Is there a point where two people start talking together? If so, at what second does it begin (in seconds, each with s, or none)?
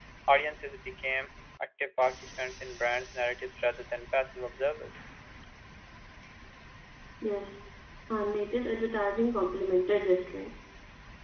none